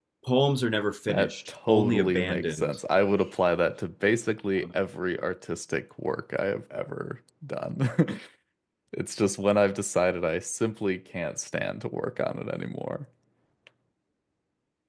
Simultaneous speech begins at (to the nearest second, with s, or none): 1 s